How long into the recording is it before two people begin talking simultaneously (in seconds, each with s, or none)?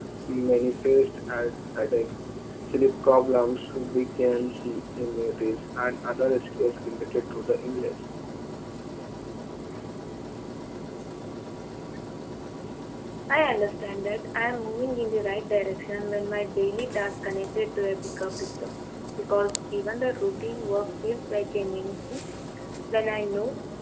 none